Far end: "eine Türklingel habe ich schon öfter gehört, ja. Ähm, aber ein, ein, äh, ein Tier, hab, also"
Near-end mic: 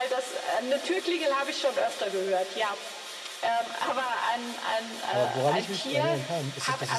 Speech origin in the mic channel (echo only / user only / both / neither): both